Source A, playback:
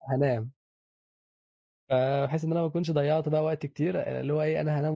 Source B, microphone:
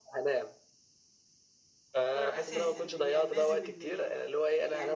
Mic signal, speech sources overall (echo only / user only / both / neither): both